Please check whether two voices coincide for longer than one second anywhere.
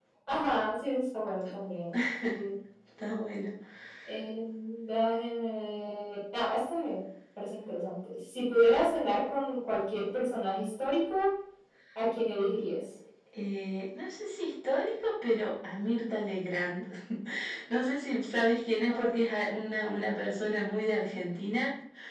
No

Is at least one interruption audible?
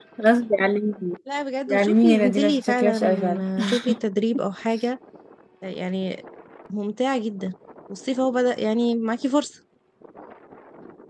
Yes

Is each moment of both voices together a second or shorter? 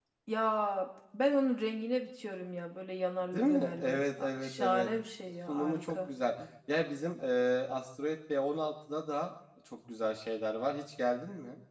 No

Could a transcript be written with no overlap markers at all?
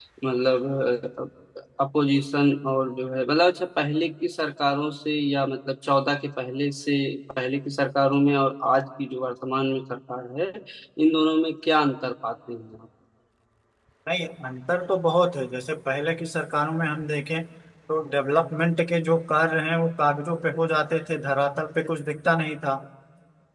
Yes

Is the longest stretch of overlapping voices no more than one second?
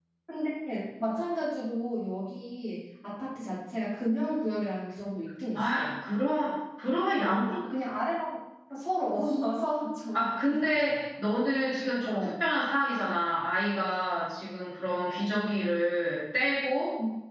Yes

